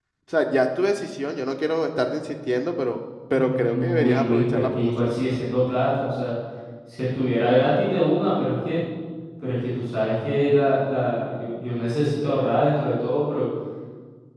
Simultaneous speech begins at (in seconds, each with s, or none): 3.3 s